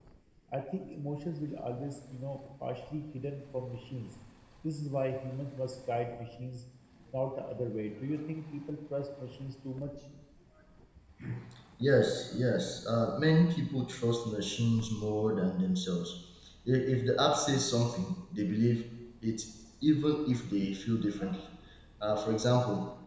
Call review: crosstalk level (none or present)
none